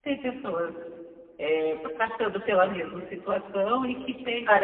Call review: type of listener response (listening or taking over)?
taking over